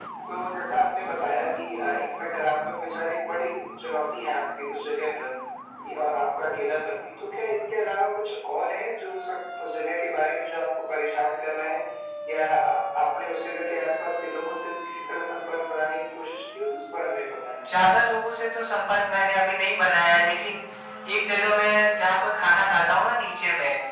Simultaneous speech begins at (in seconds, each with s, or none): none